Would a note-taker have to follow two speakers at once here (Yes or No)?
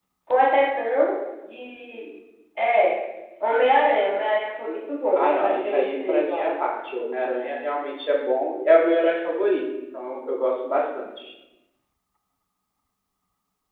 Yes